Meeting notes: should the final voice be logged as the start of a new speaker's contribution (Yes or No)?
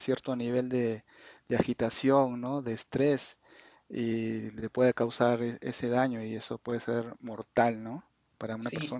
Yes